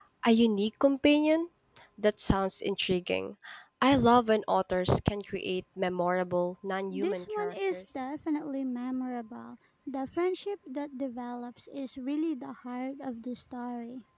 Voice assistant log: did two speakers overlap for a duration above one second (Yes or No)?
Yes